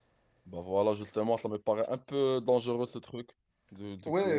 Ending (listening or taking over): taking over